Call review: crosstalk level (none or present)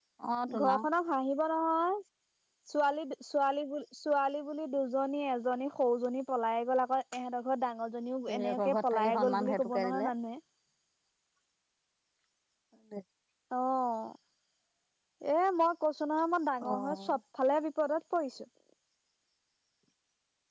present